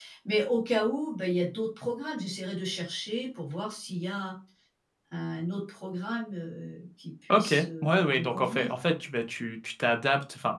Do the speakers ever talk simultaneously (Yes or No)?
Yes